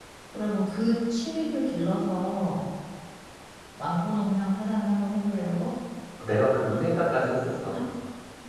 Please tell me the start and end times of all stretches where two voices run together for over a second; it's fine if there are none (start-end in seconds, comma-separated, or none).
none